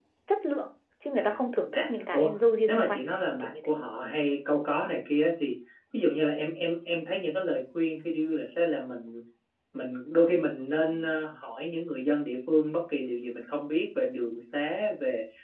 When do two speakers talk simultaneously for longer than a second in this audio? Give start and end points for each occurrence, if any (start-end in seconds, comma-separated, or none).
1.1-3.0